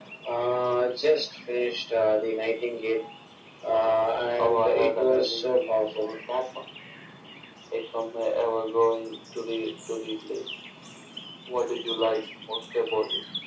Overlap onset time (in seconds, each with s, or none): 4.4 s